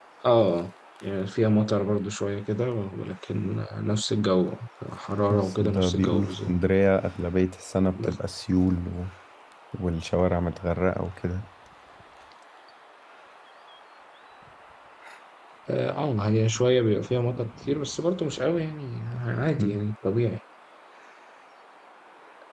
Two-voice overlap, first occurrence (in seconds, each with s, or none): 5.3 s